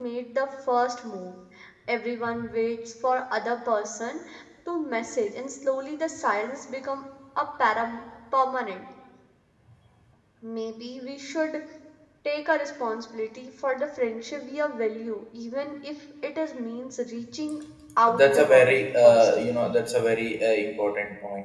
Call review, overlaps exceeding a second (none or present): present